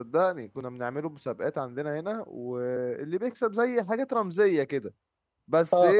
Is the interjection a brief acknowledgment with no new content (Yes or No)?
No